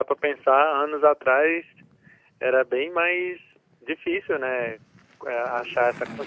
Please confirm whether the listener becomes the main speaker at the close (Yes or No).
No